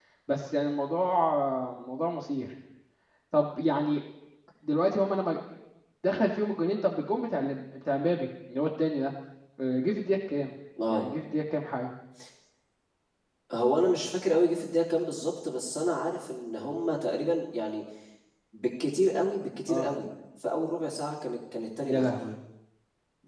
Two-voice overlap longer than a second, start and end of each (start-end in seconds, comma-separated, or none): none